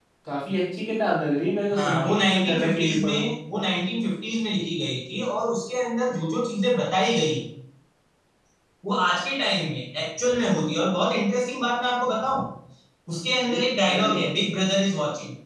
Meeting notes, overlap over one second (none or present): present